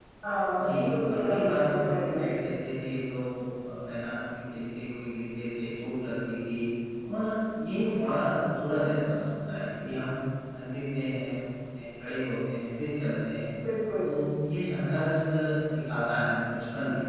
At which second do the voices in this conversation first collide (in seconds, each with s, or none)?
0.5 s